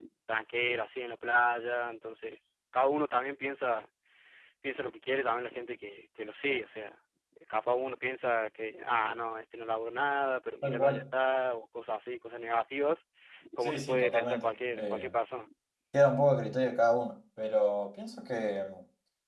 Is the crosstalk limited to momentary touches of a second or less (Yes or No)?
No